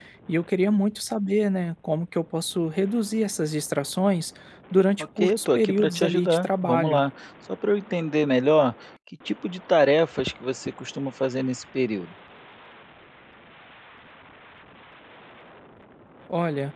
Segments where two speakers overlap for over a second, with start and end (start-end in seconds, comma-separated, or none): 5.2-7.0